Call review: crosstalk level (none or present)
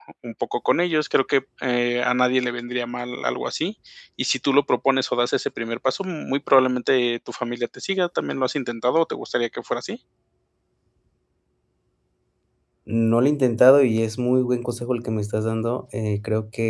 none